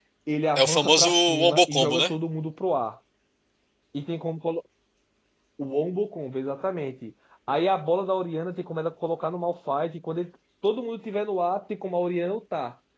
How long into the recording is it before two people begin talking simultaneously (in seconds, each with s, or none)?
0.6 s